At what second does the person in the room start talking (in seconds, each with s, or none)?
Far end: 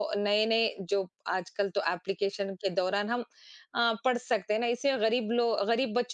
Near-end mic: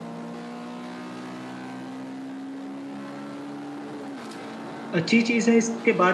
4.9 s